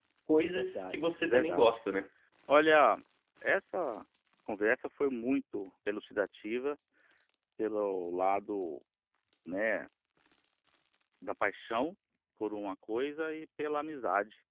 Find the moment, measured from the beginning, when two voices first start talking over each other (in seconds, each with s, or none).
0.6 s